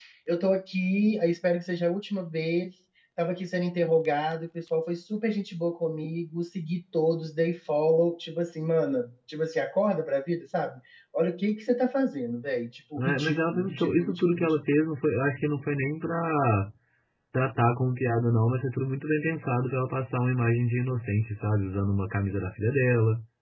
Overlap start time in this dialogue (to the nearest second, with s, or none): 13 s